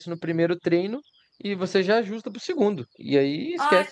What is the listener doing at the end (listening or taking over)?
taking over